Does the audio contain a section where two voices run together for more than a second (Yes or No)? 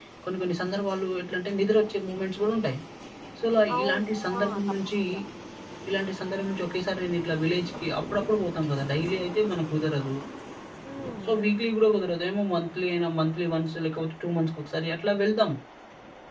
Yes